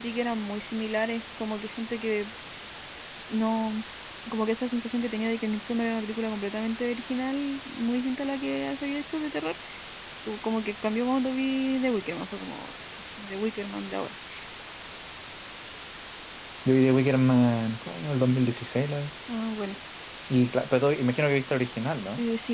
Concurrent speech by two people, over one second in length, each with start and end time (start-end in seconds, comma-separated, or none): none